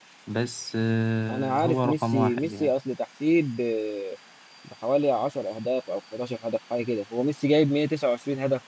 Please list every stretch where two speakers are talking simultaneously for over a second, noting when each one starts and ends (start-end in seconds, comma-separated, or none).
1.3-2.7